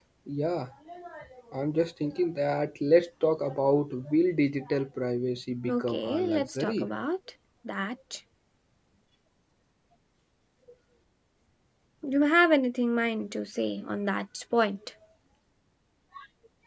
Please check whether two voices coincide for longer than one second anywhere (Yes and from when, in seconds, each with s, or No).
Yes, from 5.7 s